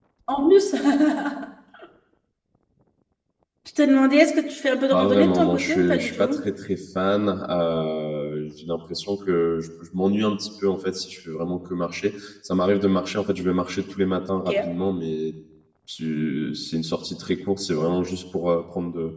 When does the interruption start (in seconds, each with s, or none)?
4.9 s